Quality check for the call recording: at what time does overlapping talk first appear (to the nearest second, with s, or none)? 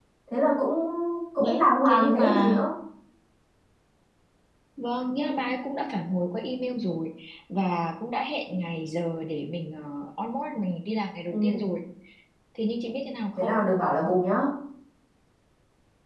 1 s